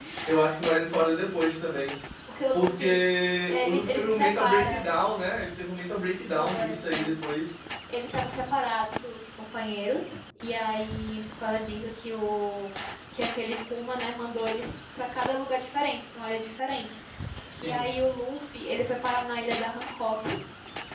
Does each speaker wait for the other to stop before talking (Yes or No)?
No